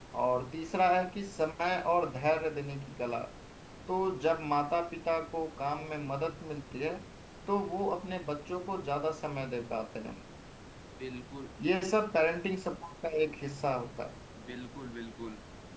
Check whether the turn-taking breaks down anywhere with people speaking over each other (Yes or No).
No